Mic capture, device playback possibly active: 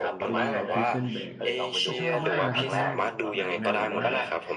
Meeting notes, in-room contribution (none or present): present